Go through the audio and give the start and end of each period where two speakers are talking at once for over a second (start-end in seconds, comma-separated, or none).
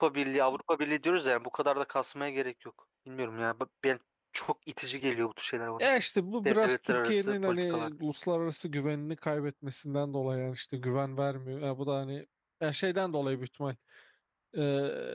6.5-7.9